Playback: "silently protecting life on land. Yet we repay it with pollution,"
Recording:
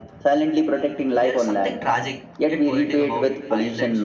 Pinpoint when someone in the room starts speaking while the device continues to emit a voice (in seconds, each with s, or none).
1.2 s